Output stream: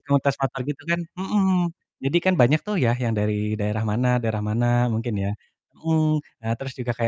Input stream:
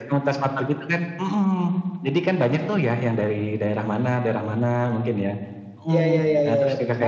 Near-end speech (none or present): present